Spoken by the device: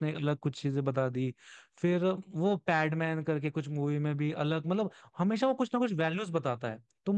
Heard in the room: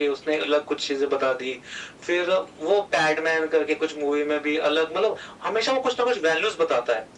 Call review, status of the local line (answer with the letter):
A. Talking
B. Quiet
B